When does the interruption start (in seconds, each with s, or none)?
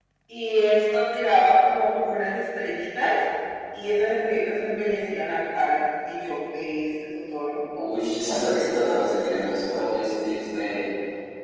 none